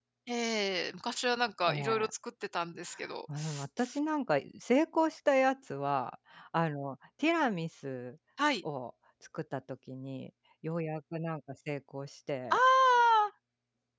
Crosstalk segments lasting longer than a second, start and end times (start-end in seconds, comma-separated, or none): none